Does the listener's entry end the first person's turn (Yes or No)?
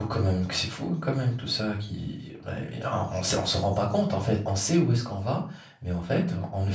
No